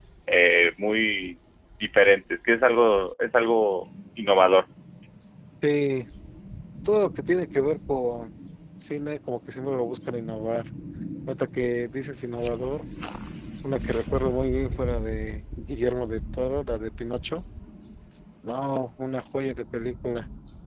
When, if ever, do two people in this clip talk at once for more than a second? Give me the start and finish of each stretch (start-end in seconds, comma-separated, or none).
none